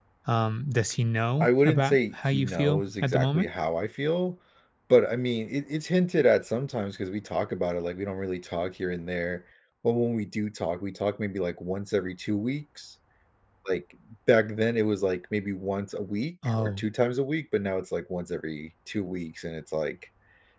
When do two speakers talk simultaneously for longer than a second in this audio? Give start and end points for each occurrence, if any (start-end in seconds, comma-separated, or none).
1.4-3.5